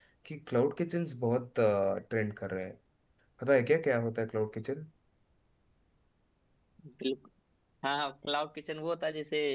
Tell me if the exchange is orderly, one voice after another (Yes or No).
Yes